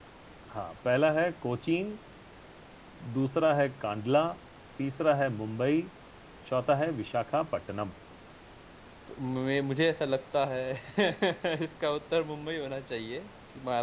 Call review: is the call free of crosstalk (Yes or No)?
Yes